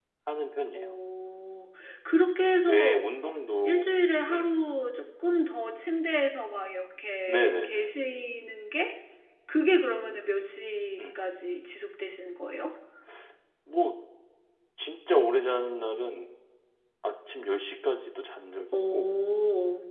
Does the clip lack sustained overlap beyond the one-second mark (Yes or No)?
Yes